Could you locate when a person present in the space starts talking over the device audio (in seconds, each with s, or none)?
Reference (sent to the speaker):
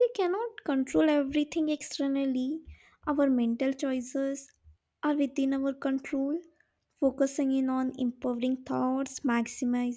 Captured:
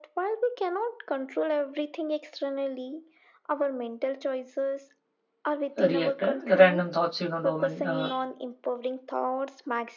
5.8 s